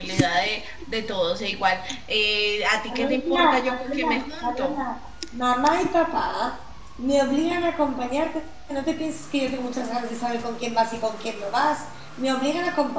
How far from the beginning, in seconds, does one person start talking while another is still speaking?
2.9 s

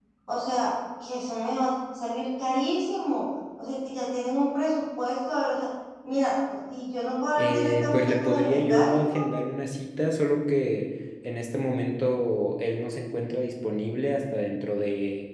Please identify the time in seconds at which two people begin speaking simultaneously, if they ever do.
7.4 s

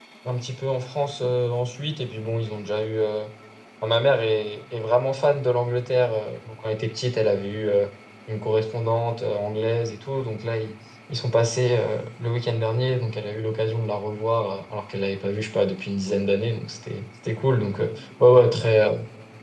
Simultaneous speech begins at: none

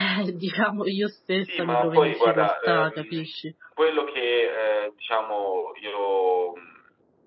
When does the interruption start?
1.3 s

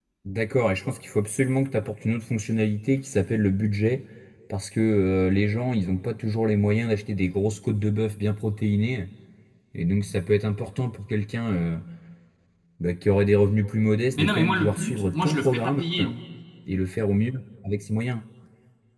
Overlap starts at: 14.1 s

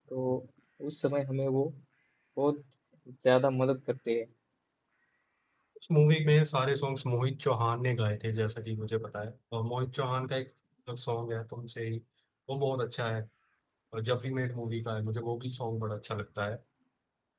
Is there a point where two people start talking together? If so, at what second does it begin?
none

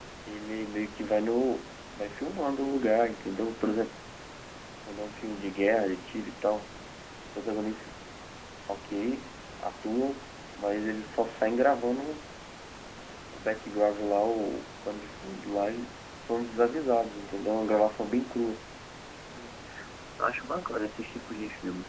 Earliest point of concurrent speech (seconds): none

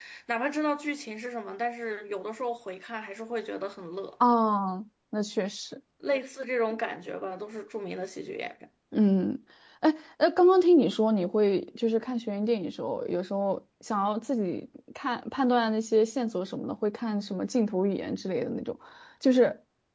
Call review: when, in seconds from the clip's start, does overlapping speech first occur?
none

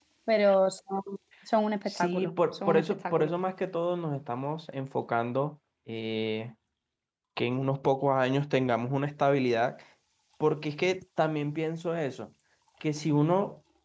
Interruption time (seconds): 1.9 s

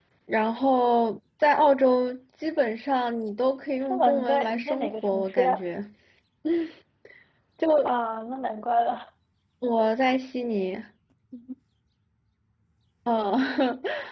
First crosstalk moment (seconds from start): 3.9 s

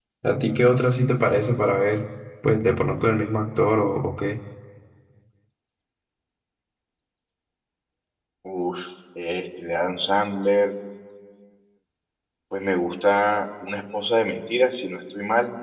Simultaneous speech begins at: none

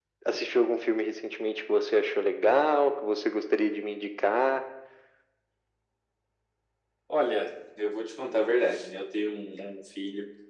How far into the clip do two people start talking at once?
none

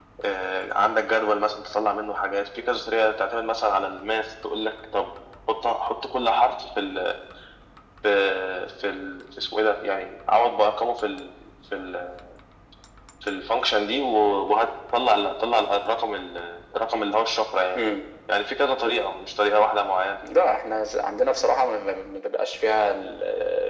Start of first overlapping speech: none

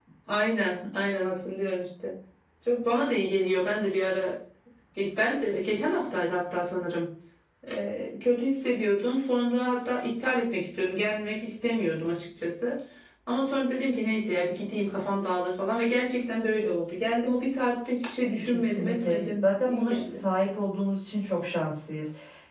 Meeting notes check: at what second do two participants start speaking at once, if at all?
18.4 s

